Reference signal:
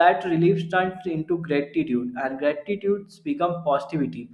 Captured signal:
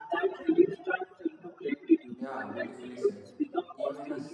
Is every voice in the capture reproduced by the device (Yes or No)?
No